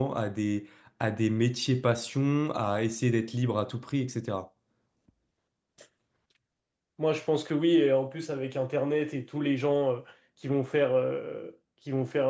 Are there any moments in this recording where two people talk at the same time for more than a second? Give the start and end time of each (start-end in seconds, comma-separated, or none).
none